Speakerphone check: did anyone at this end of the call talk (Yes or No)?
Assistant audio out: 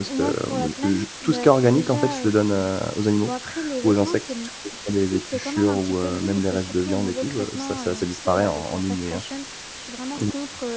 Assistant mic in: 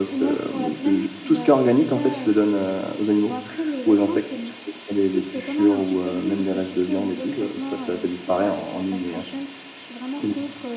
No